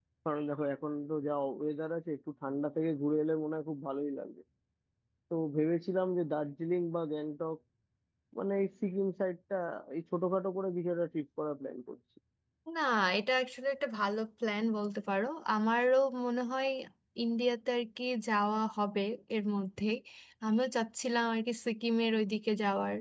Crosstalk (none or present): none